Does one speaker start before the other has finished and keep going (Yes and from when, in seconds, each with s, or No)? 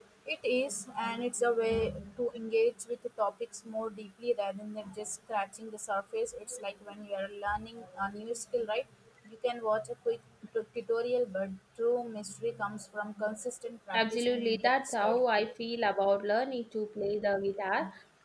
Yes, from 13.9 s